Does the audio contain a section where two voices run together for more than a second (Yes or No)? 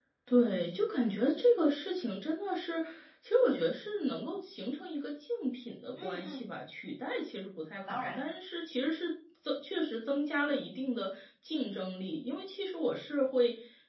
No